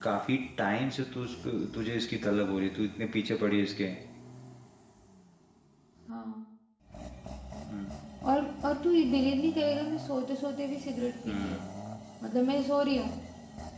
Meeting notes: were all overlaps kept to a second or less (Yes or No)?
Yes